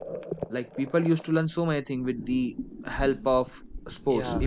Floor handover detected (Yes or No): Yes